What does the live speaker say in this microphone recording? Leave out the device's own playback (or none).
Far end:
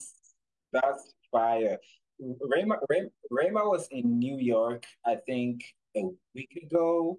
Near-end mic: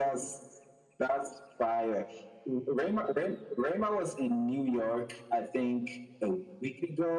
none